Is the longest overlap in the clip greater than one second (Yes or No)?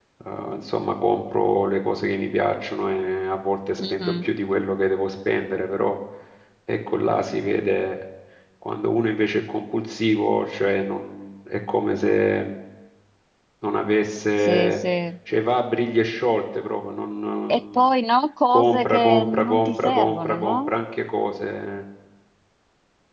Yes